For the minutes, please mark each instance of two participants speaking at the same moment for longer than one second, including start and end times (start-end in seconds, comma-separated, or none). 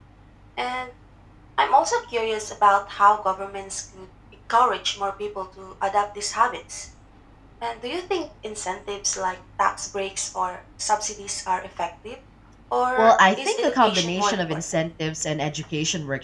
13.0-14.6